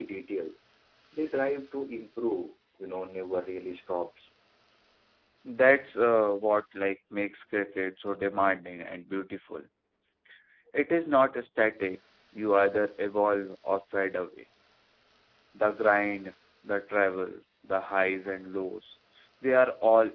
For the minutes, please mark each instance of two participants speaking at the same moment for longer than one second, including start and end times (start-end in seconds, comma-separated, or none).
none